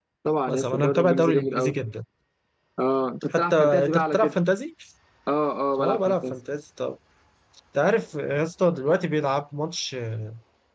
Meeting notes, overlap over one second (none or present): present